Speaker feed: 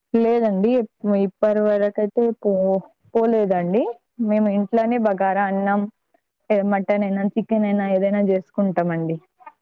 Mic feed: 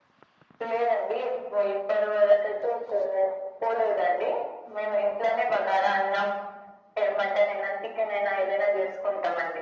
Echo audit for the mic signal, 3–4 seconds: echo only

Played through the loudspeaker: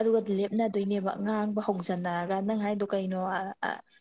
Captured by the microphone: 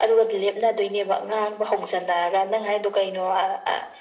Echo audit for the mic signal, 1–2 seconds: echo only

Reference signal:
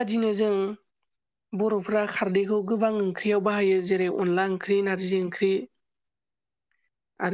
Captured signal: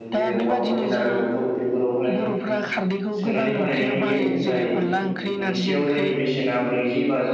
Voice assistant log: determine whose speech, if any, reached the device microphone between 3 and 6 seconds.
both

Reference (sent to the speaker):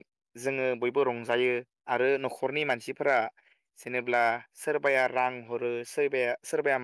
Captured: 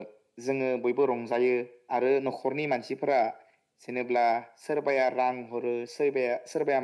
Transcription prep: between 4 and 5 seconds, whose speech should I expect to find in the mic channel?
echo only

